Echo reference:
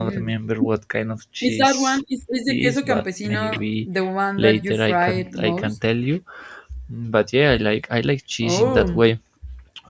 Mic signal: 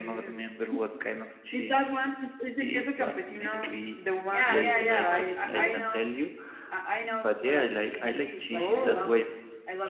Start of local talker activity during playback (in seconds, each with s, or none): 4.3 s